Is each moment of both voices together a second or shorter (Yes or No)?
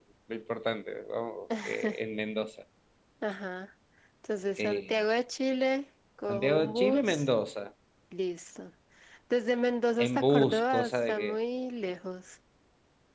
No